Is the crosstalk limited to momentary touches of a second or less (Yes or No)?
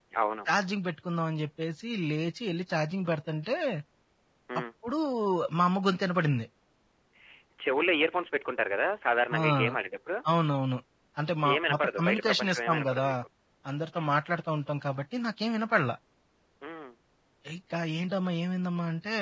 No